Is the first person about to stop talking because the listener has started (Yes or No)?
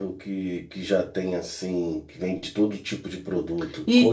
Yes